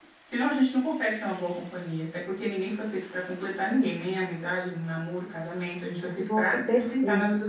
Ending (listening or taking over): taking over